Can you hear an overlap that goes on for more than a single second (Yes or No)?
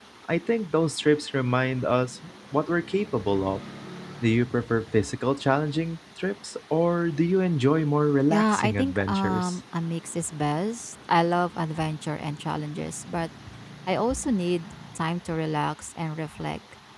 Yes